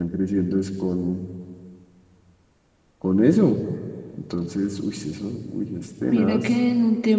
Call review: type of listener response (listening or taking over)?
taking over